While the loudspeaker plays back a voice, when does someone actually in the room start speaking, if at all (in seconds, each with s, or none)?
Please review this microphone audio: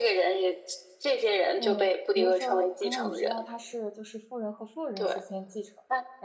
1.6 s